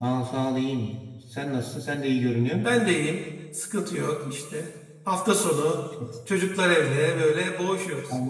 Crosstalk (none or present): none